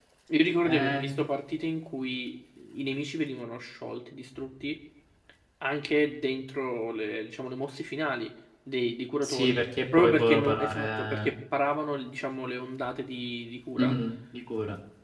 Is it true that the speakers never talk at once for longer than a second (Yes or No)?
No